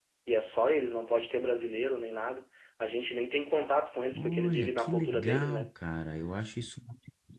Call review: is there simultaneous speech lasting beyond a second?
Yes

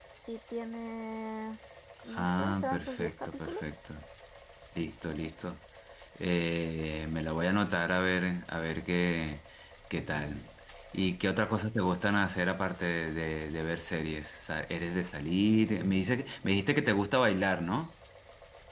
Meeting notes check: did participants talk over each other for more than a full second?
Yes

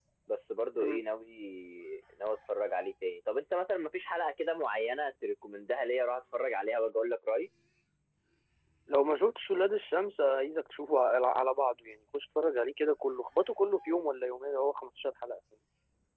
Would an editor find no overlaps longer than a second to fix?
Yes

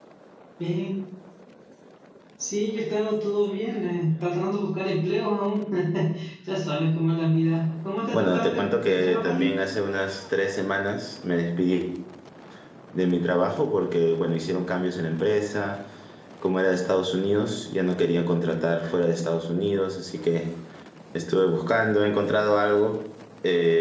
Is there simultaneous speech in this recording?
Yes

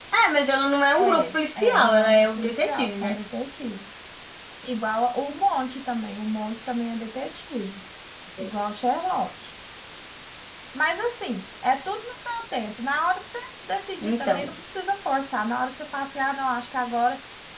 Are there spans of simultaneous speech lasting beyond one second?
Yes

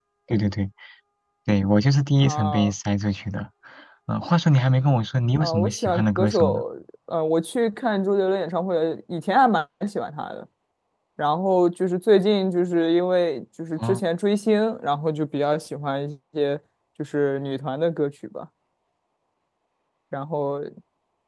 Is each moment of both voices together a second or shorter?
No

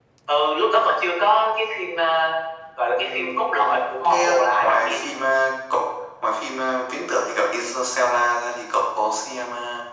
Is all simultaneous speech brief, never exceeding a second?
No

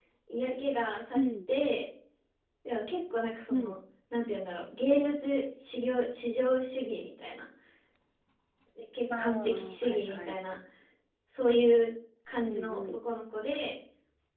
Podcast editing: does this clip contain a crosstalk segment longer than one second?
Yes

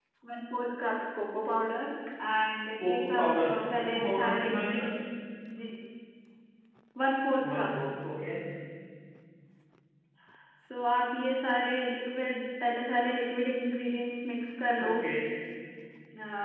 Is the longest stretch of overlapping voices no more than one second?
No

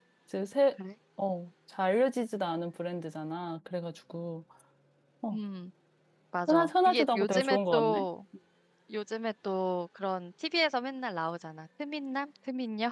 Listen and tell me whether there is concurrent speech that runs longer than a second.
Yes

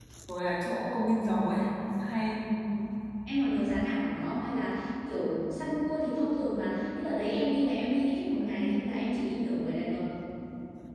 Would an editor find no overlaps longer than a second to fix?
Yes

